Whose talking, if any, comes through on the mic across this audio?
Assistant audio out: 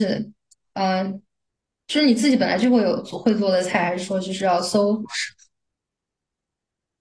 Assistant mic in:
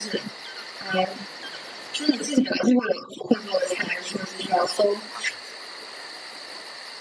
echo only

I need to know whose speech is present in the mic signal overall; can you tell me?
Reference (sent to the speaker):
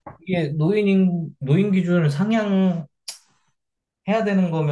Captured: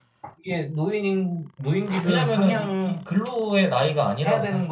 both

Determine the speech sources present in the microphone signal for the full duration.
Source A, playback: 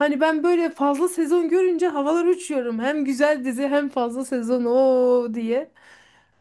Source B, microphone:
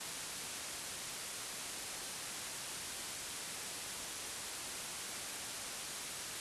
neither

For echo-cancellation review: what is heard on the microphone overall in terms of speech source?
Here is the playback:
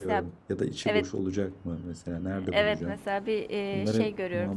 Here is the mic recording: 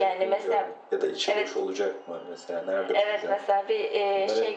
echo only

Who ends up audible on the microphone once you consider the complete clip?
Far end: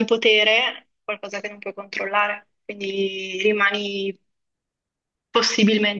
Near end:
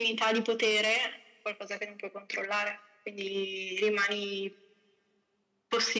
echo only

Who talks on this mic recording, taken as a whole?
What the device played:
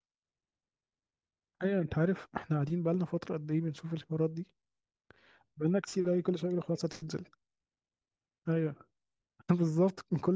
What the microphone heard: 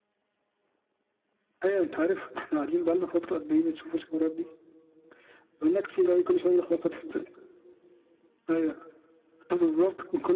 echo only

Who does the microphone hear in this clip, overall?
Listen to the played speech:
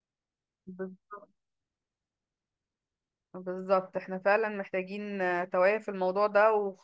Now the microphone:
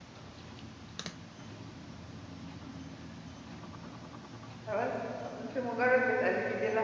user only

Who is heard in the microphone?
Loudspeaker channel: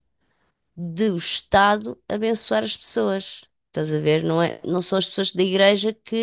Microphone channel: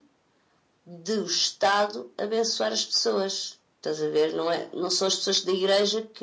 echo only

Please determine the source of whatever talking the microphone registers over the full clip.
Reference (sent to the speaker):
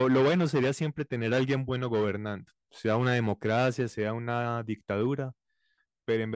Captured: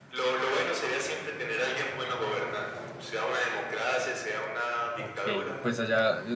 both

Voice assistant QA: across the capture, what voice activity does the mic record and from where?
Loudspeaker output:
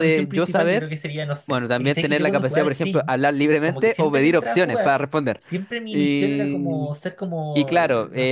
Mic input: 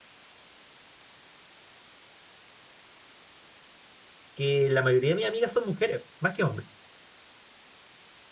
user only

